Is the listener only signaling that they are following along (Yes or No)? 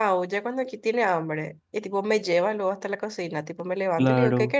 Yes